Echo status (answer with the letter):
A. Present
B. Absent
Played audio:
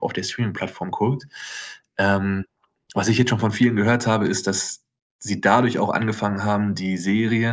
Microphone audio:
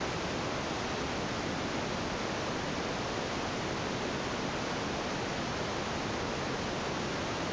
B